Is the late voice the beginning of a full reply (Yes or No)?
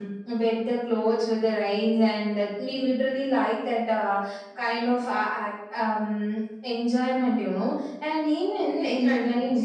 Yes